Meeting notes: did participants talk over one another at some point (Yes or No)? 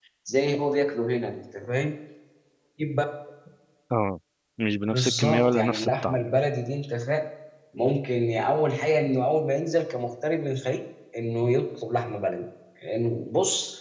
Yes